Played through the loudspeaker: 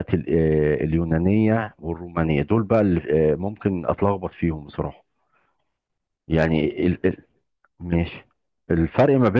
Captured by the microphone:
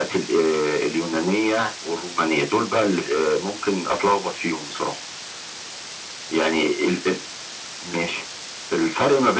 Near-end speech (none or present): none